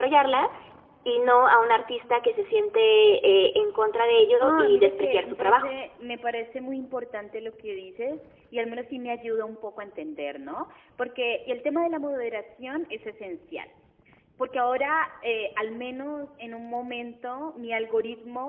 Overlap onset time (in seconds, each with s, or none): 4.4 s